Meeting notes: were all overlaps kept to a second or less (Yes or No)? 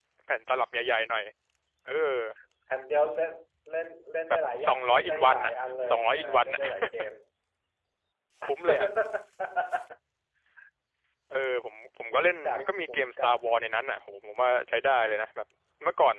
No